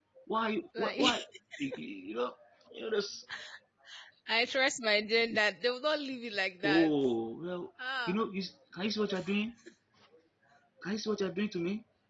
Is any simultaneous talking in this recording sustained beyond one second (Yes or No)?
No